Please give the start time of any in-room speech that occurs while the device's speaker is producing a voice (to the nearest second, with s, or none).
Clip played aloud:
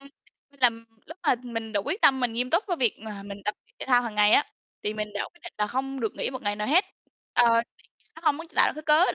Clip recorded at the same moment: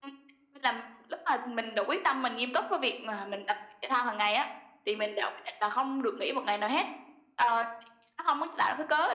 none